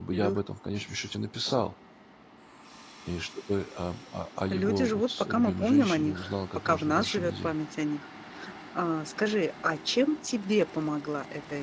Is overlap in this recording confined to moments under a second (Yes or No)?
No